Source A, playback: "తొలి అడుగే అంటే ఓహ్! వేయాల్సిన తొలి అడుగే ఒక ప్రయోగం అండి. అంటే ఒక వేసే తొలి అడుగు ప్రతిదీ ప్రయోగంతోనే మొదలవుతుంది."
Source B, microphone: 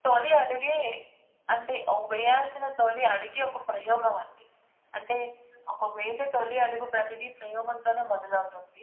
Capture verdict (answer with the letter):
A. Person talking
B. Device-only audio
B